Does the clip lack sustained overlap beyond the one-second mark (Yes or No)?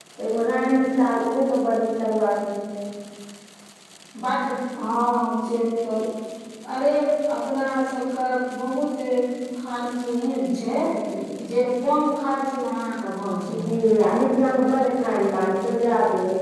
Yes